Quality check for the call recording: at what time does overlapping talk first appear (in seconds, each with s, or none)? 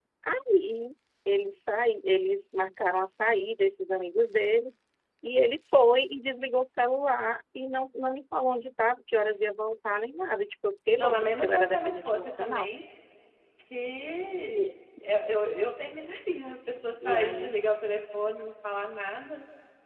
11.0 s